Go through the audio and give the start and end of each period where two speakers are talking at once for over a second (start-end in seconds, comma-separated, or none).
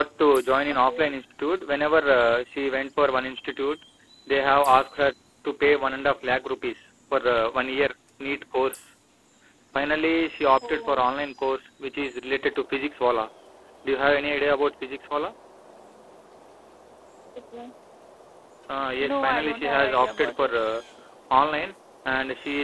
19.0-20.5